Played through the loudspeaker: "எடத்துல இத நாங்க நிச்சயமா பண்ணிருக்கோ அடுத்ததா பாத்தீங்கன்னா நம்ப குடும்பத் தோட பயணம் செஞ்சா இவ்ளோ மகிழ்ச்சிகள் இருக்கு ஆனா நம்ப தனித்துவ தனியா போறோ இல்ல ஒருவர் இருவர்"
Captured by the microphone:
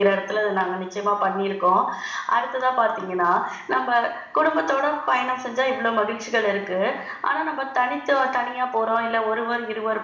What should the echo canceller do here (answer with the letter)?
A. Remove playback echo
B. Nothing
A